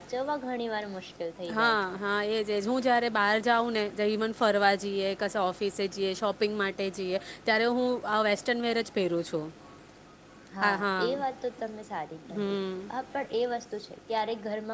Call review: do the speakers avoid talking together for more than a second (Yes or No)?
Yes